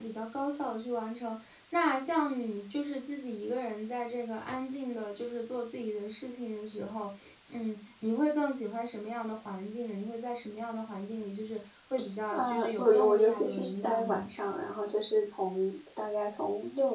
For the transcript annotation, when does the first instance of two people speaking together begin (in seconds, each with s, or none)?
12.3 s